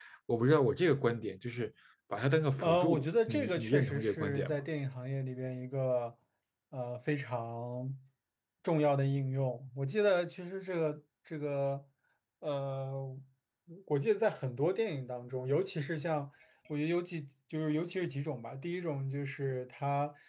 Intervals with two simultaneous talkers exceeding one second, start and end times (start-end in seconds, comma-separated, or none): 2.6-4.6